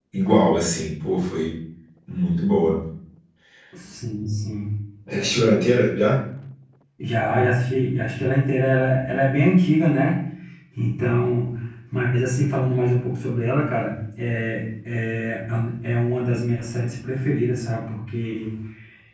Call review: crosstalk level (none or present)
none